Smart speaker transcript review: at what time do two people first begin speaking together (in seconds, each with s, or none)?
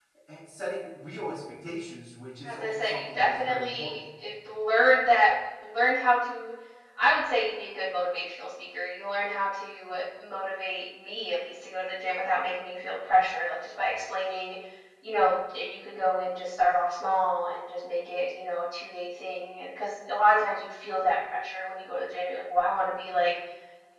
2.4 s